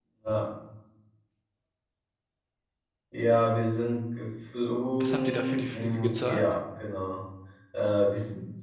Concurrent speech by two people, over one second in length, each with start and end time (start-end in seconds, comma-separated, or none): 5.0-6.5